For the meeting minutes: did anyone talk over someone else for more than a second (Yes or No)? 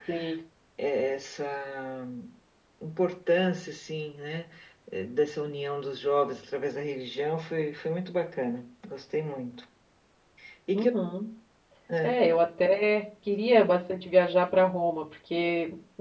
No